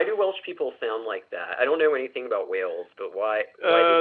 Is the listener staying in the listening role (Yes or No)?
No